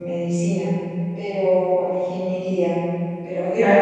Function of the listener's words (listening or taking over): listening